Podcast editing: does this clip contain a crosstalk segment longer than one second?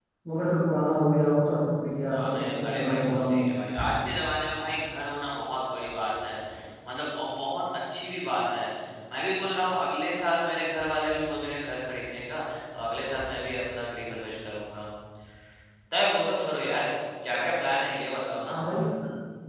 Yes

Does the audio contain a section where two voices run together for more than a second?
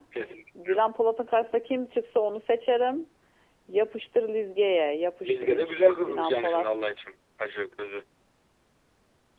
Yes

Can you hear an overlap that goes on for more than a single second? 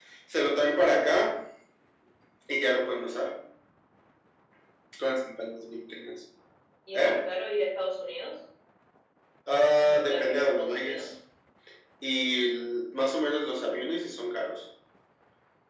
Yes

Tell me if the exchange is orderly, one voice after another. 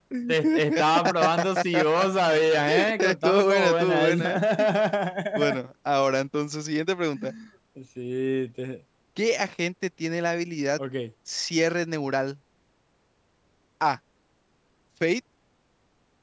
No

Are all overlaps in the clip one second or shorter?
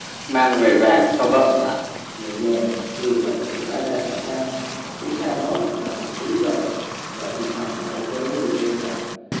Yes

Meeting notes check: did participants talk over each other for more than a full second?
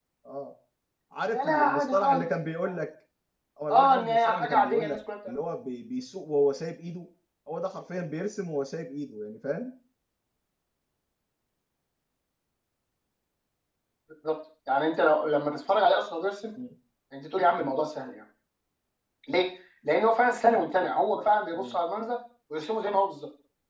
Yes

